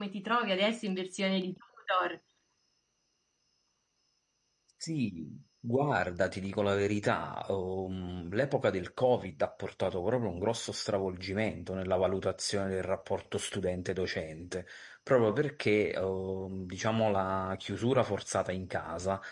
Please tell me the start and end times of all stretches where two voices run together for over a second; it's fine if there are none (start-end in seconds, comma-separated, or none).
none